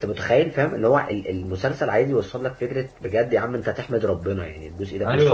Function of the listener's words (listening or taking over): taking over